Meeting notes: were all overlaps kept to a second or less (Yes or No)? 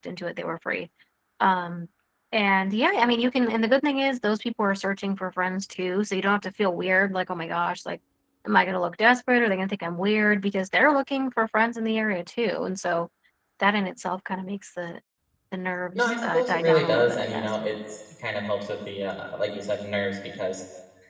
No